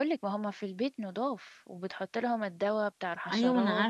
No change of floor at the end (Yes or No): No